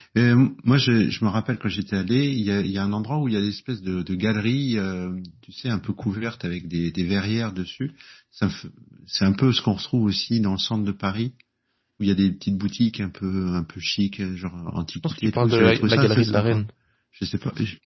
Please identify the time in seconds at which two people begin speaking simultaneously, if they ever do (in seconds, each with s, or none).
15.0 s